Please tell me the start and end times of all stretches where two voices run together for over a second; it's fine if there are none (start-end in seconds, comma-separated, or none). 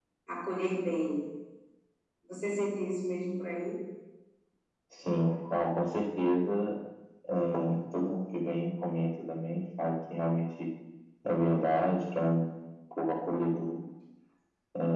none